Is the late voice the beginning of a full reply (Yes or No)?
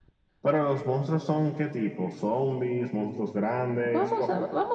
Yes